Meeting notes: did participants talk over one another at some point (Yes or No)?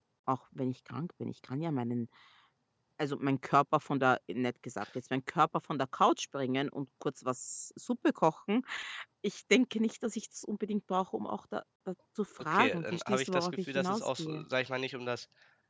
Yes